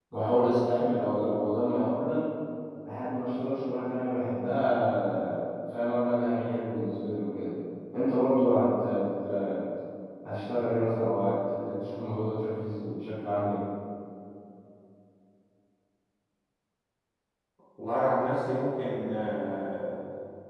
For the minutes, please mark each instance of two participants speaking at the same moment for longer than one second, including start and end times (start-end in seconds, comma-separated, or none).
none